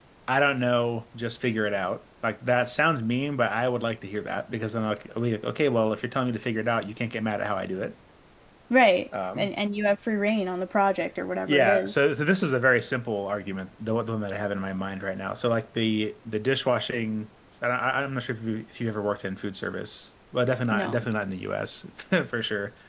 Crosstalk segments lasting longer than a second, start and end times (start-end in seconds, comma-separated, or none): none